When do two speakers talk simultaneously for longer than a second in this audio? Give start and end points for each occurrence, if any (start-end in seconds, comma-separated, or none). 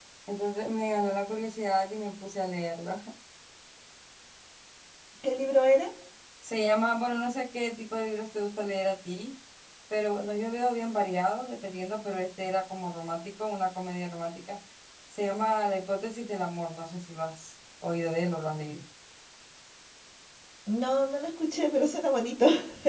none